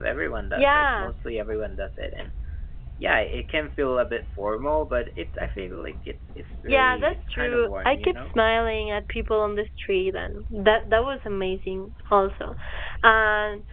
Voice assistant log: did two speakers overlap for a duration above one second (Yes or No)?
Yes